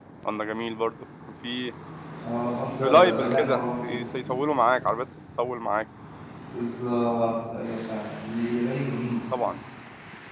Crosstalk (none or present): present